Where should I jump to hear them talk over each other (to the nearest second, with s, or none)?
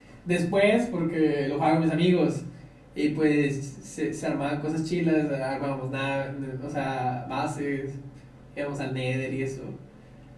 none